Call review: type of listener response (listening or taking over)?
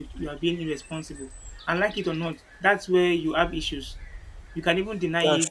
listening